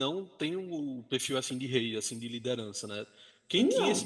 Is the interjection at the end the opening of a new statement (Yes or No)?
No